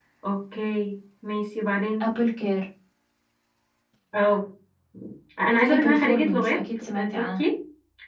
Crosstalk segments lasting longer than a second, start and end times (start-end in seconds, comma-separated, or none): 5.6-7.4